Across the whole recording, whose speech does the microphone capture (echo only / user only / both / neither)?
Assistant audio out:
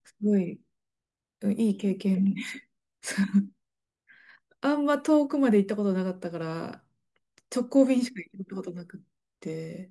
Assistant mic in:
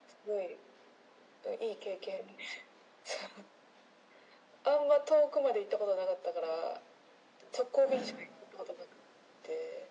echo only